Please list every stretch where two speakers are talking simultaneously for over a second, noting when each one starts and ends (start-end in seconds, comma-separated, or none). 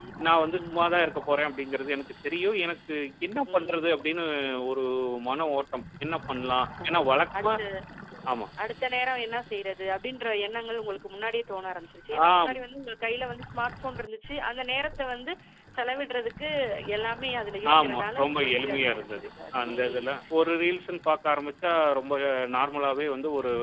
17.8-19.3